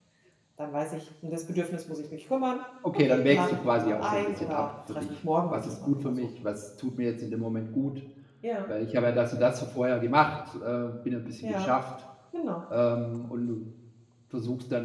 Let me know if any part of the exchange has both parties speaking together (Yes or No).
Yes